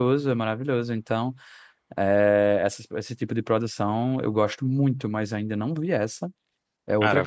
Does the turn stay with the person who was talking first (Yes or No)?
No